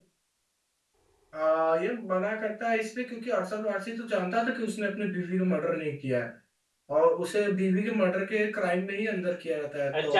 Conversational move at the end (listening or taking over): taking over